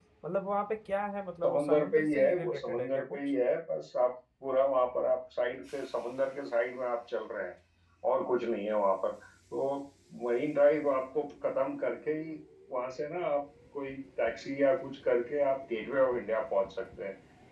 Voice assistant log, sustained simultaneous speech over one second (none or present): present